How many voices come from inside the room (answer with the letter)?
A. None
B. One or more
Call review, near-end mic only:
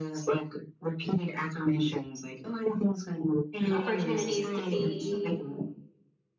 B